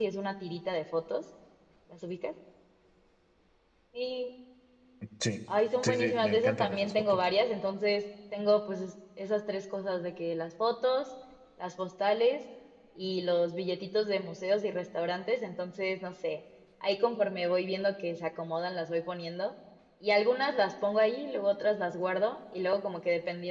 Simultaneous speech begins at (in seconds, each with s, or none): 5.8 s